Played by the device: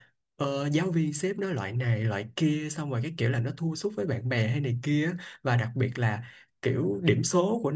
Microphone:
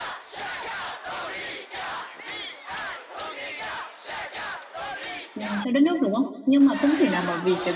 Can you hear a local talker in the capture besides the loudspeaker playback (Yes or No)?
Yes